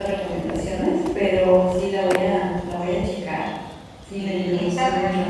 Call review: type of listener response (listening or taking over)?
taking over